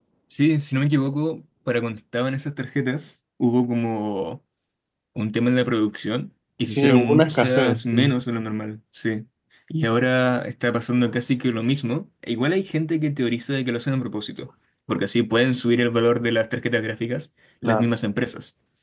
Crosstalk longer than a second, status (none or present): present